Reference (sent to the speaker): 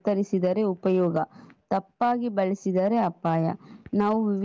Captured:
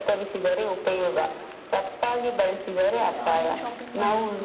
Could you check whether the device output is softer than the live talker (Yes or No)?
No